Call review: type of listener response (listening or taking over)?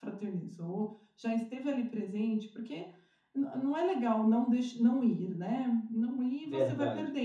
listening